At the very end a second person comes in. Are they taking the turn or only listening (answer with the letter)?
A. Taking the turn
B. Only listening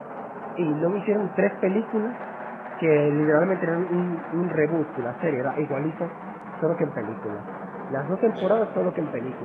B